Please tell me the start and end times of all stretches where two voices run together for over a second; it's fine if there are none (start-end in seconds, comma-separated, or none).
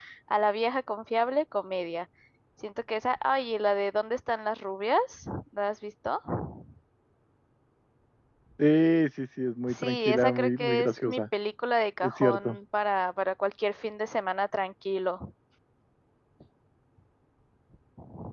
9.7-11.2